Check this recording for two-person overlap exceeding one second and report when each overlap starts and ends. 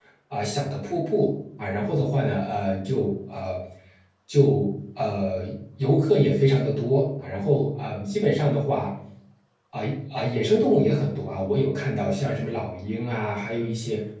none

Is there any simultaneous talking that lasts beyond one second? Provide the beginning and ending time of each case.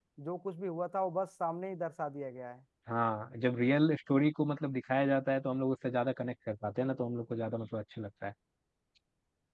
none

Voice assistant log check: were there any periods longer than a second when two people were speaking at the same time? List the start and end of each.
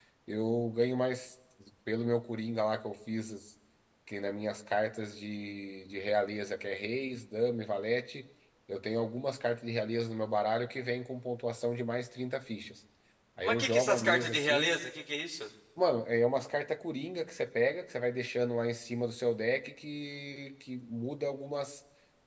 13.4-14.7

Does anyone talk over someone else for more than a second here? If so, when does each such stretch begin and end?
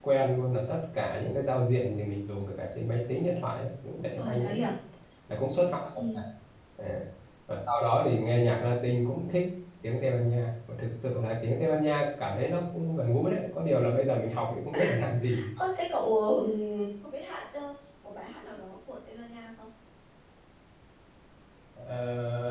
none

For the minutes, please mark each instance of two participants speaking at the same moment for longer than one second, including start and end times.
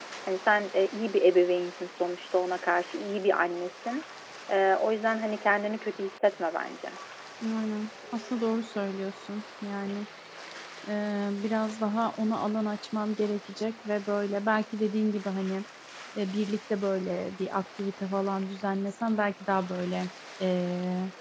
none

